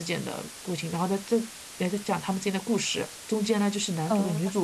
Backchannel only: Yes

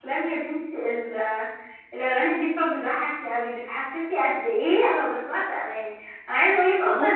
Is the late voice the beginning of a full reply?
No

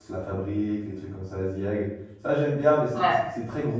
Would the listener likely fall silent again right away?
Yes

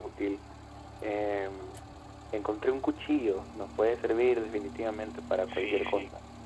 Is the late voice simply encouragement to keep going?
No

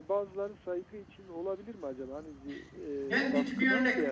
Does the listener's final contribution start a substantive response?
Yes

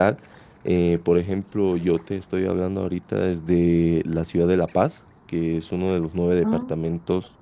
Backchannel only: Yes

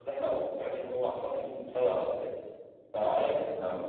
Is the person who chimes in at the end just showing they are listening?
Yes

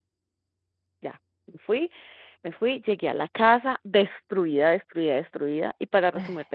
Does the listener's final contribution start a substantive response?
No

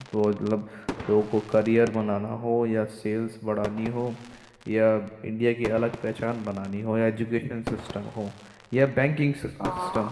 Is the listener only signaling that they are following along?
Yes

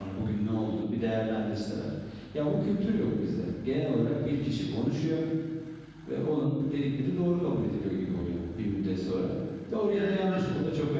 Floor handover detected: No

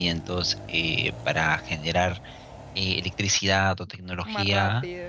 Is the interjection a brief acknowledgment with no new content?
Yes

